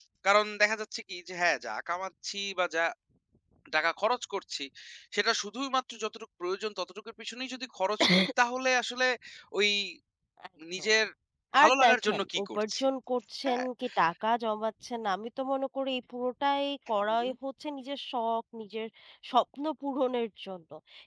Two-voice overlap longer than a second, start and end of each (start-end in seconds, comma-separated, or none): 11.6-12.8